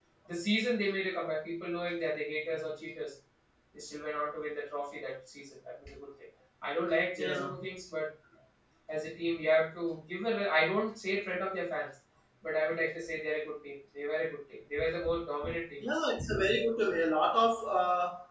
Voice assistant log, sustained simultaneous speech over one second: none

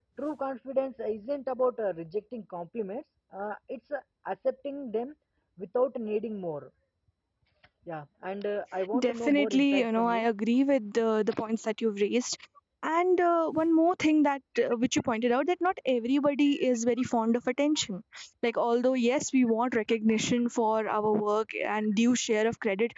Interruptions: present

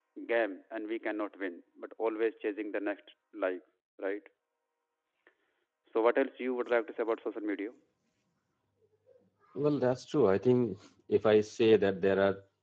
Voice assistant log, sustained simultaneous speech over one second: none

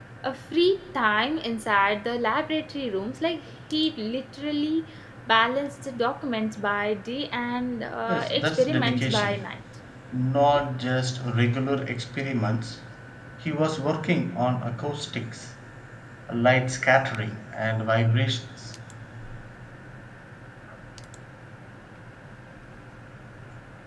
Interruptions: present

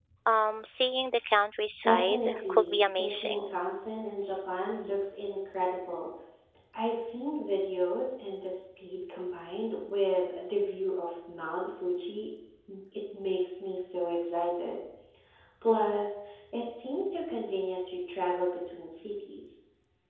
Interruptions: present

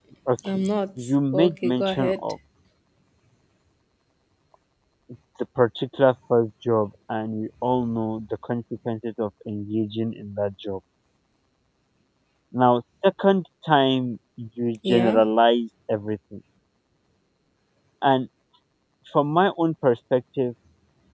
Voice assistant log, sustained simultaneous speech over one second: present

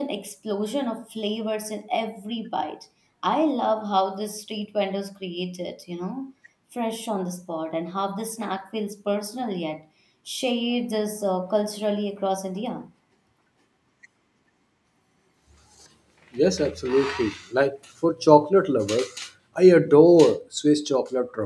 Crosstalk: none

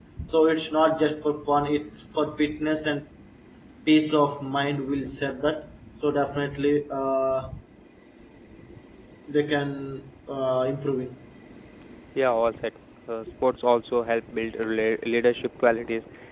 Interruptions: none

